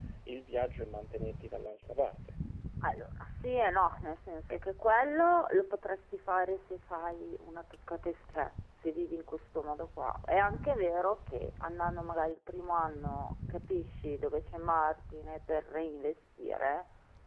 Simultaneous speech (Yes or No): No